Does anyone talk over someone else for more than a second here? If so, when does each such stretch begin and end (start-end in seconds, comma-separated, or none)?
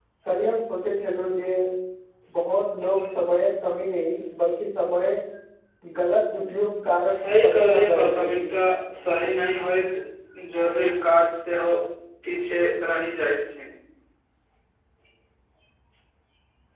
7.2-8.4